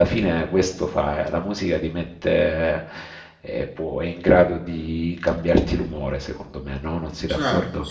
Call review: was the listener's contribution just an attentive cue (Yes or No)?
No